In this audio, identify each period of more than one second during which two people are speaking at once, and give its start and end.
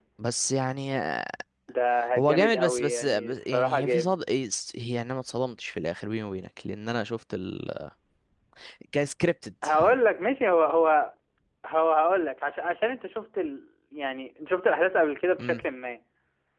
2.2-4.1

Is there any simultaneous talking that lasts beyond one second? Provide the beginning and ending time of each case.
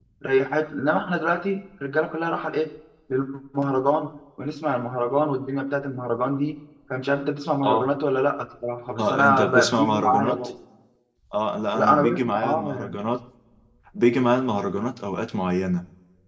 9.0-10.4, 11.7-13.0

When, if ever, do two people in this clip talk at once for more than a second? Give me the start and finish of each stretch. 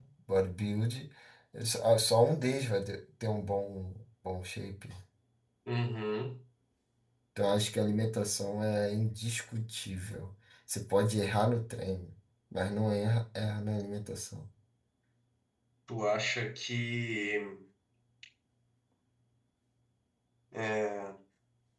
none

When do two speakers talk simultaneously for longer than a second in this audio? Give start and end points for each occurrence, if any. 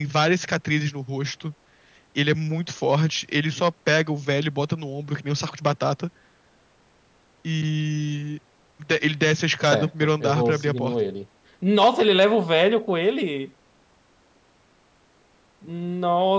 9.7-11.0

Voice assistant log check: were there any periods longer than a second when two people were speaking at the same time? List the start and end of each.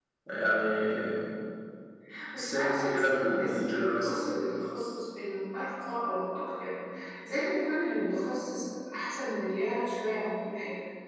2.4-4.1

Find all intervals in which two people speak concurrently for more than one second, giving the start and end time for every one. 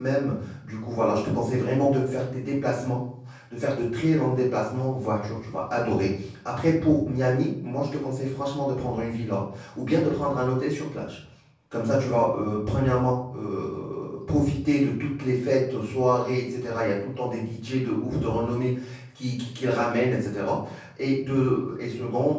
none

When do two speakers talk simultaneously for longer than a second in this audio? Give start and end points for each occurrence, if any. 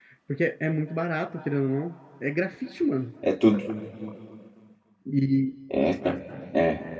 none

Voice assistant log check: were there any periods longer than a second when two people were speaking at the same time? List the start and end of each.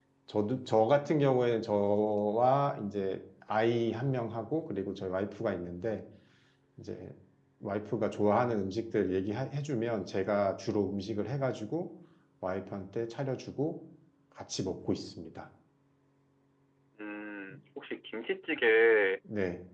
none

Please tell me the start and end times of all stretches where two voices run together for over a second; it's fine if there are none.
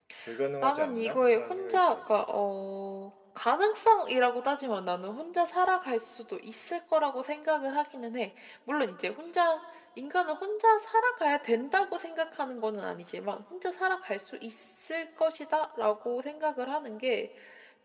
0.6-2.0

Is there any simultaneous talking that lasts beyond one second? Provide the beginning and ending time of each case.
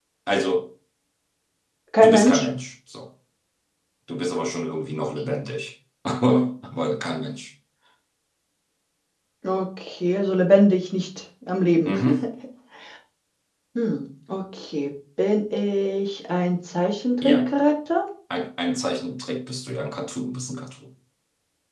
none

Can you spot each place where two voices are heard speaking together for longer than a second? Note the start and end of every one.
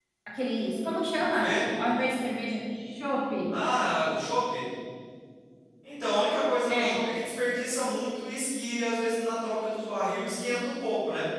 none

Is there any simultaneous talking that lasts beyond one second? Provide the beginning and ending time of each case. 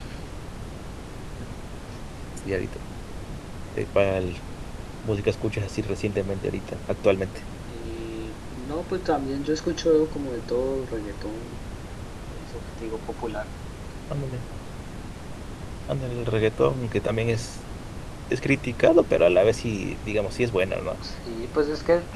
none

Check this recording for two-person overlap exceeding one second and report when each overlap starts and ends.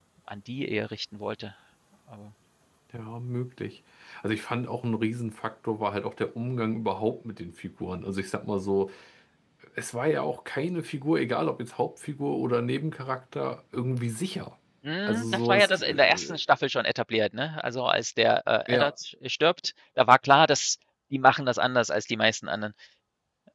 15.1-16.4

